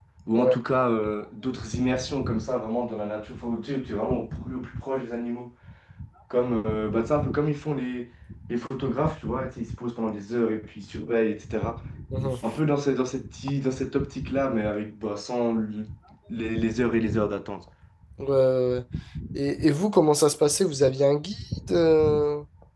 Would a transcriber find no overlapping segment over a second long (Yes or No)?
Yes